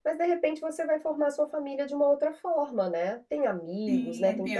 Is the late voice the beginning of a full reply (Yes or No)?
Yes